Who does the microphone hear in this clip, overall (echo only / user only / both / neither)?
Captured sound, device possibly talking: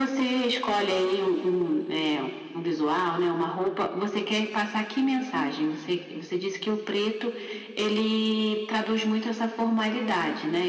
echo only